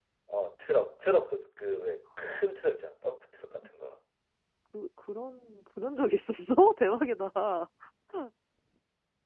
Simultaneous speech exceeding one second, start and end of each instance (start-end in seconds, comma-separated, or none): none